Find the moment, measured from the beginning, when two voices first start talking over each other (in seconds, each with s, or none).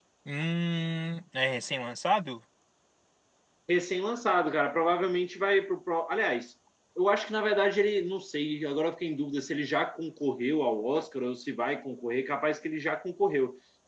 none